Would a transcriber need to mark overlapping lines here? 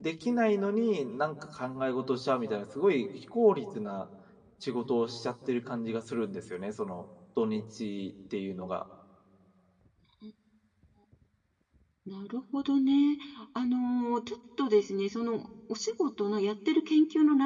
No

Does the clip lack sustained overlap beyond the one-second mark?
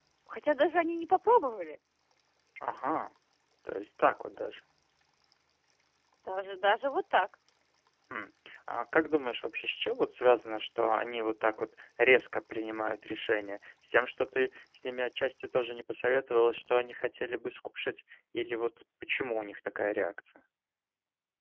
Yes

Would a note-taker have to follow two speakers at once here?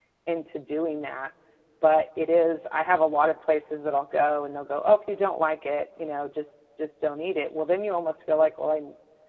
No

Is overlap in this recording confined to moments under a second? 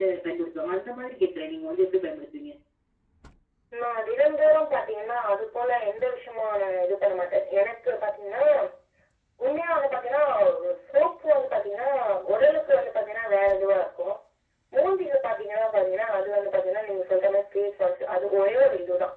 Yes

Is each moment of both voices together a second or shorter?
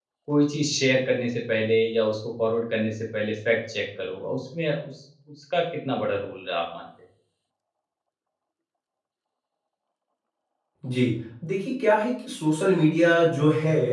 Yes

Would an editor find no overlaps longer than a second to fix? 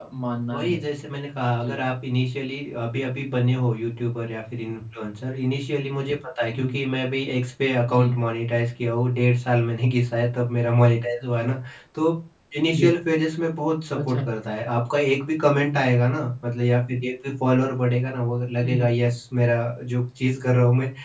Yes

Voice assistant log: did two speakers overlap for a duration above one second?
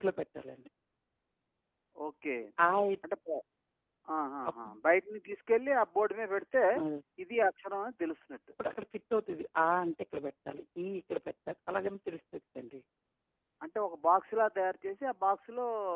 No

